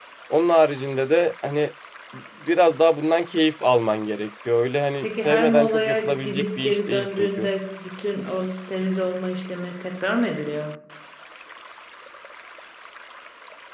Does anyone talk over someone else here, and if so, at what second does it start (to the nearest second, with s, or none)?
5 s